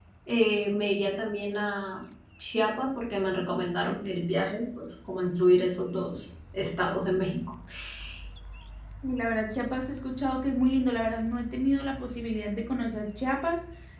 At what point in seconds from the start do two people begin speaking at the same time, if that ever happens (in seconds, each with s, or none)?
none